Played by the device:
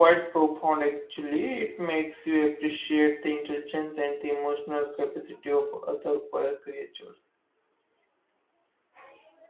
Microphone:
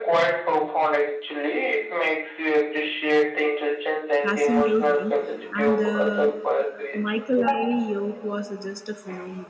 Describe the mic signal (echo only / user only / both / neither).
both